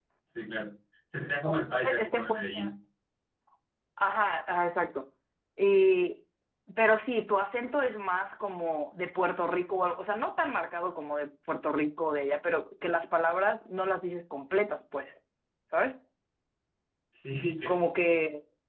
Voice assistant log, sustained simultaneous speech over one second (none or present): present